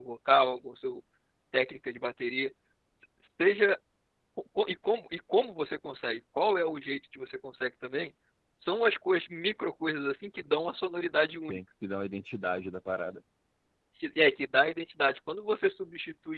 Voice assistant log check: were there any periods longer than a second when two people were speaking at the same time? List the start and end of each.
none

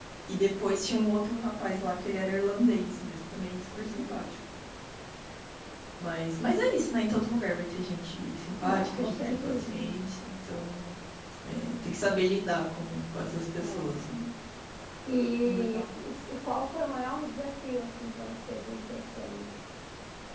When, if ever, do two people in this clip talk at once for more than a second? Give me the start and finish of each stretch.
8.6-10.0

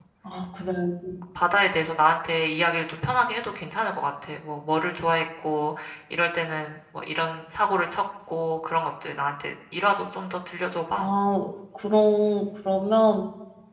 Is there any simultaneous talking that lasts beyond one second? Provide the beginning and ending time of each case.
none

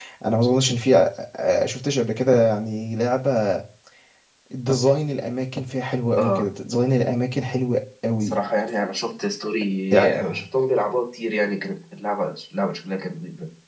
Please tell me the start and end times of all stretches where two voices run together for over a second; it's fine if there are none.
none

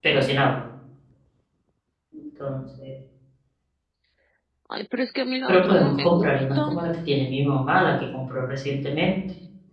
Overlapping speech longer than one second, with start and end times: 5.5-6.7

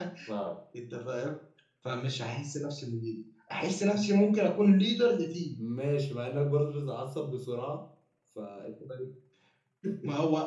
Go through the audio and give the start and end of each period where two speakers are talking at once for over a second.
none

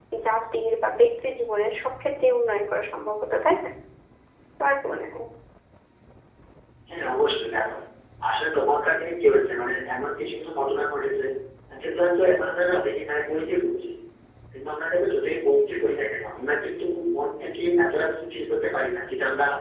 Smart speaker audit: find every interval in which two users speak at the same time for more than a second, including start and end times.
none

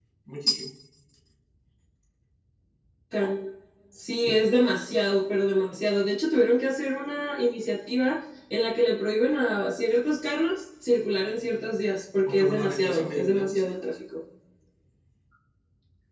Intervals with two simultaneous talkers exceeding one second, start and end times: 12.3-13.7

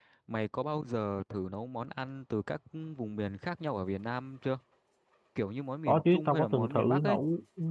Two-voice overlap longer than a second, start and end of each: 5.9-7.2

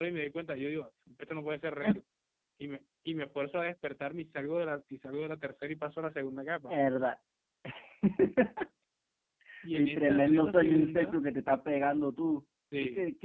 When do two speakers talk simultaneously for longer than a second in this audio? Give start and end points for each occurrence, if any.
9.7-11.2

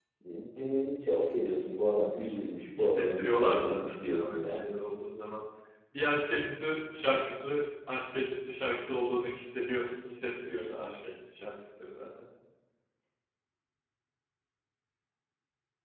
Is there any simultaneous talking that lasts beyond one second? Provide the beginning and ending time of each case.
2.8-4.6

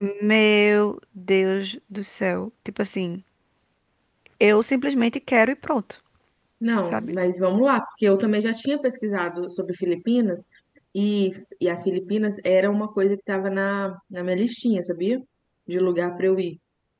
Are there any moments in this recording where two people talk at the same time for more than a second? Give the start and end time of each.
none

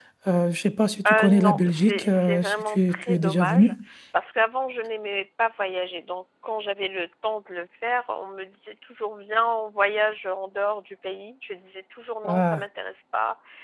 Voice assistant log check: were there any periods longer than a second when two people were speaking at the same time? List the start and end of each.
1.1-3.7

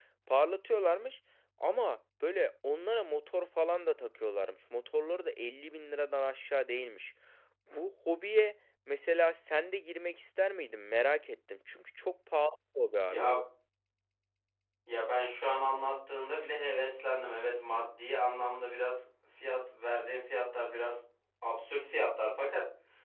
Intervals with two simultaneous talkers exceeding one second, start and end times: none

